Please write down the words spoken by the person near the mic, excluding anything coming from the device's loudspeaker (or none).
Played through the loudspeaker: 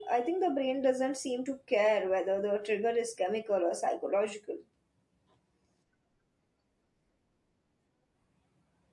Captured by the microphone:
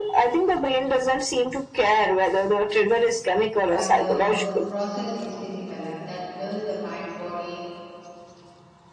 but the per- process is physical and that blurs the mind body